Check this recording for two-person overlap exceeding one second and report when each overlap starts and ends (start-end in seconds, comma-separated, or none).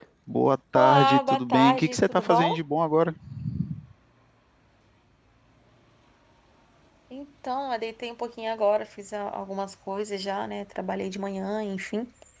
0.7-2.6